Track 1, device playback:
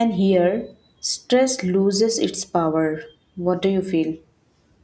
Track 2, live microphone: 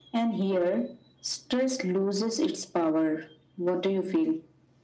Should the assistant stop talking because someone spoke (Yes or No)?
No